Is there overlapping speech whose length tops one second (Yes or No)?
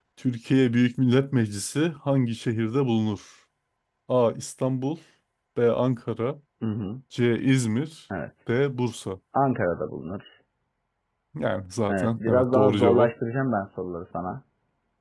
Yes